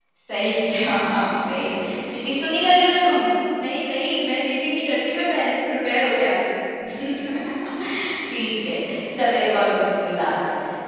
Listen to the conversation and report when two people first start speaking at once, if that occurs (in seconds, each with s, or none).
none